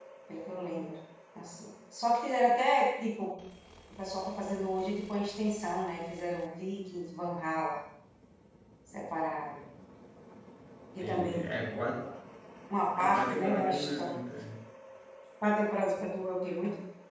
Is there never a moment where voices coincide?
No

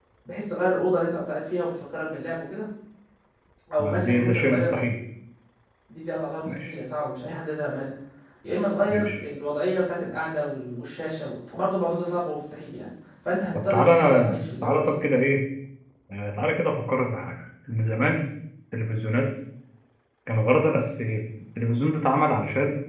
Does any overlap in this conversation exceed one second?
Yes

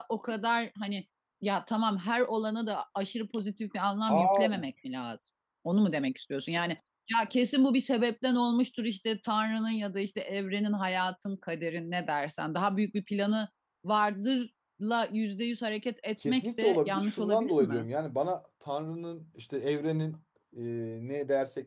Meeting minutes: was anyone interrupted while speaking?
Yes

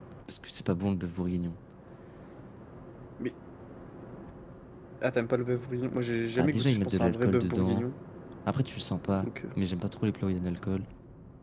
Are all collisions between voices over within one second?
No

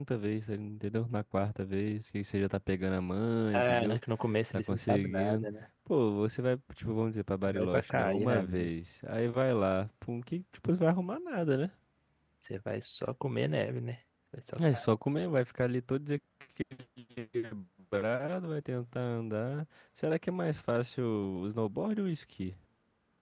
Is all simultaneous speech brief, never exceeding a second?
No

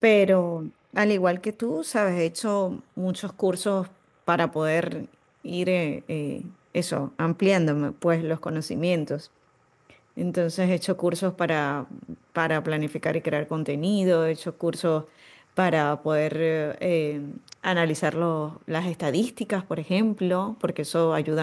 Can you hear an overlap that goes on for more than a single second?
No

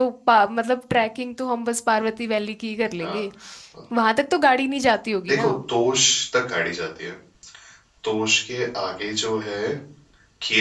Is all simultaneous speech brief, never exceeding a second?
Yes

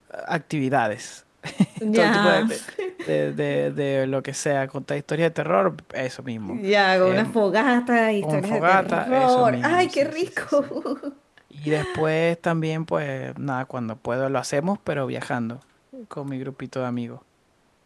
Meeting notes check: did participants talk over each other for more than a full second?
Yes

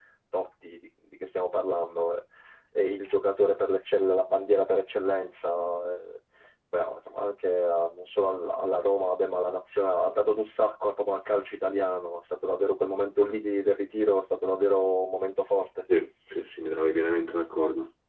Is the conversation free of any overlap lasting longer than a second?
Yes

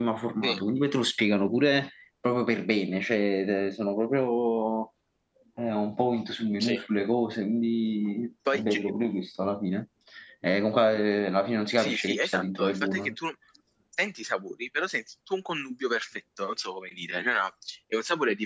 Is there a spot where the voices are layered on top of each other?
Yes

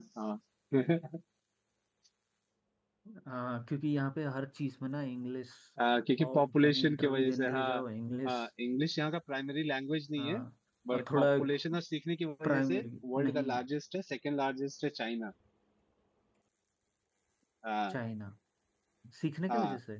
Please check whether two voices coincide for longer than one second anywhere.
Yes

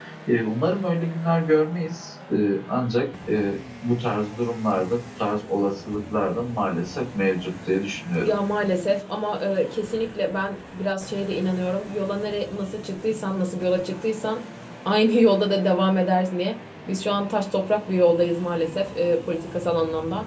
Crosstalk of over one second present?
No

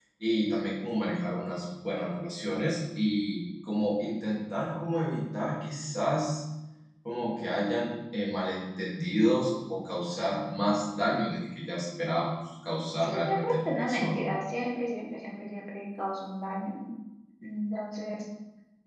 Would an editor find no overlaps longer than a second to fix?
No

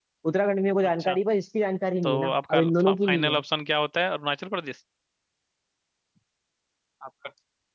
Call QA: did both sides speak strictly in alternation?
No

